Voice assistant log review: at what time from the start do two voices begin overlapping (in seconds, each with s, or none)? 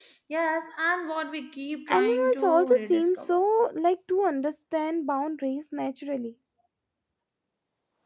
1.9 s